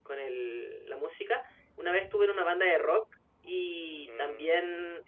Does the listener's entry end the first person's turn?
No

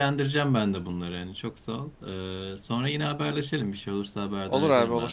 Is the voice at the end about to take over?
Yes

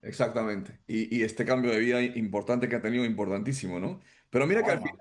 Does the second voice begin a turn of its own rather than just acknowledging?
No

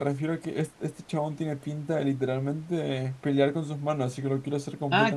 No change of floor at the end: No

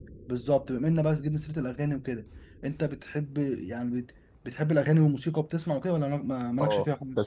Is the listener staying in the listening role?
No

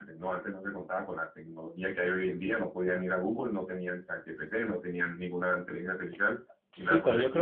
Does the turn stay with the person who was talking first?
No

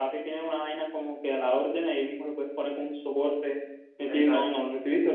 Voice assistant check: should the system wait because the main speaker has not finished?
Yes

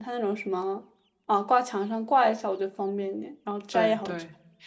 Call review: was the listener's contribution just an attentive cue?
No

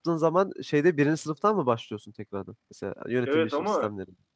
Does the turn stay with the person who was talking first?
No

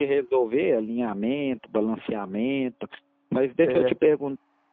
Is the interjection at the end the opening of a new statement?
No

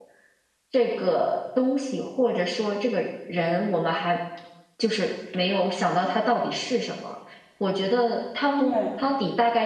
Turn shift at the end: No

